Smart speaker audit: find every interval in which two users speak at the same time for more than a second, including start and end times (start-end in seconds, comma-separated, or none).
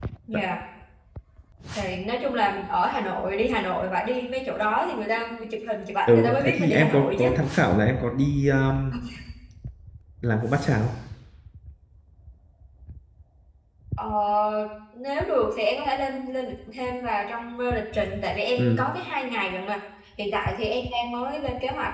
6.1-7.3